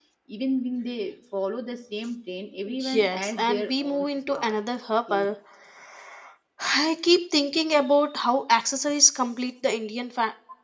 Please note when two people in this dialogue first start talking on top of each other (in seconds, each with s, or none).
2.9 s